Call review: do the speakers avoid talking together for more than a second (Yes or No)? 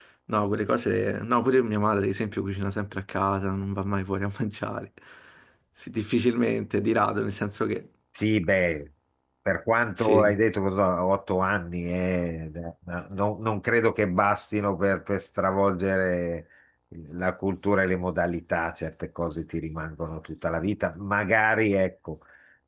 Yes